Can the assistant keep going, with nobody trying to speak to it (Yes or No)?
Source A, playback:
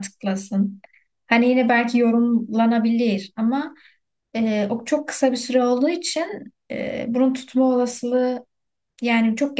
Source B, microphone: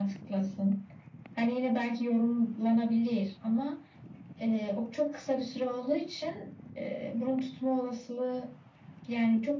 Yes